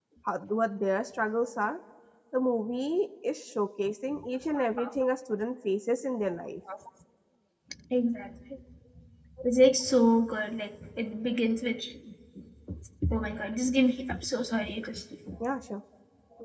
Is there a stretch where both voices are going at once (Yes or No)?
No